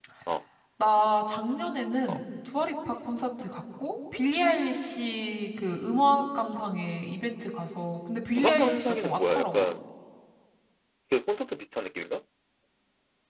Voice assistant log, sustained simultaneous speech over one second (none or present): present